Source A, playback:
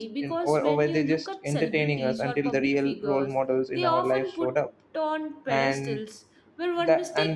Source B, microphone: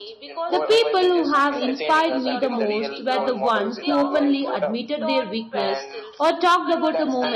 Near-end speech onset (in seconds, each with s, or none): 0.5 s